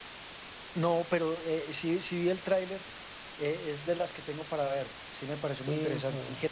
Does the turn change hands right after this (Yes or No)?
Yes